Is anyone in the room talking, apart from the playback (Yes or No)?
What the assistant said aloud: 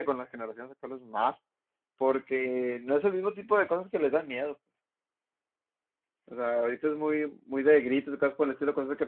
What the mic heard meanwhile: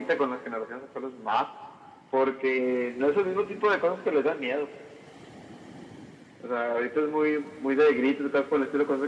No